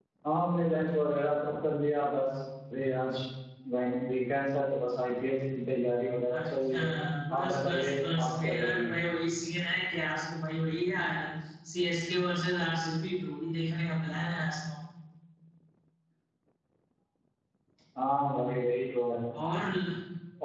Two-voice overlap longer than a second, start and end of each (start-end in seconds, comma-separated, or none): 7.3-8.9